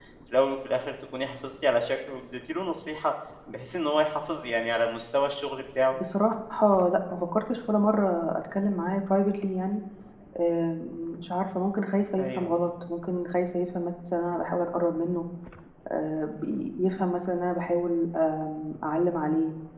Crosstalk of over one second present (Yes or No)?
No